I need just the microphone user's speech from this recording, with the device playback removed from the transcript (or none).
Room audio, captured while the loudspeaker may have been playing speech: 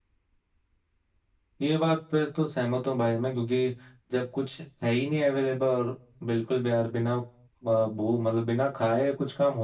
none